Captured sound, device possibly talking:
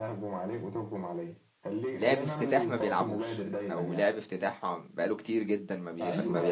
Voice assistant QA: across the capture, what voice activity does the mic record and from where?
both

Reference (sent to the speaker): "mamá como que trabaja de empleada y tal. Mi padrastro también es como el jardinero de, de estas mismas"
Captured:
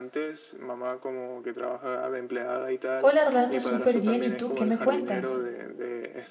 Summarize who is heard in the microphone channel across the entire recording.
both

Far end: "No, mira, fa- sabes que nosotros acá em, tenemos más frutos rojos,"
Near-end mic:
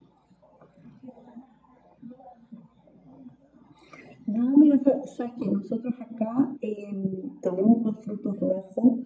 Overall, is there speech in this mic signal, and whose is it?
echo only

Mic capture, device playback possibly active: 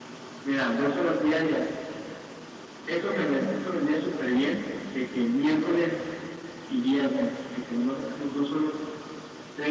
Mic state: echo only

